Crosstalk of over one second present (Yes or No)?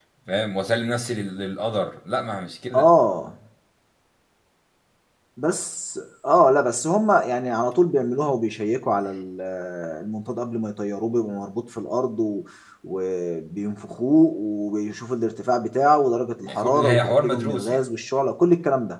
Yes